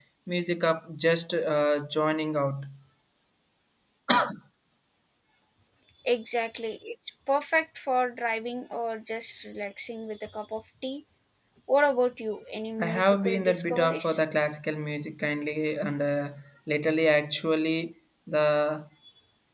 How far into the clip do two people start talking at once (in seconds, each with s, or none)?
12.8 s